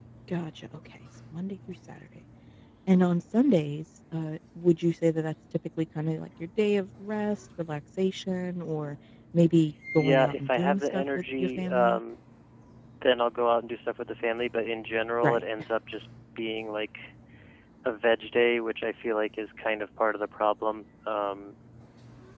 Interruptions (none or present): present